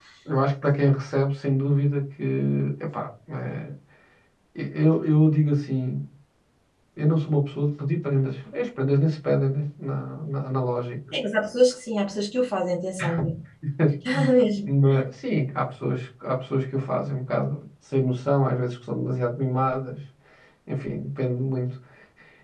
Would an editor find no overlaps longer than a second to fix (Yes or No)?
Yes